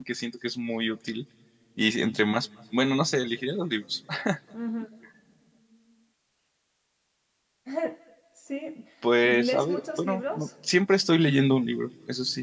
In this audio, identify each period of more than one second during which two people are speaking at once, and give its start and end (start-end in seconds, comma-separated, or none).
9.2-10.5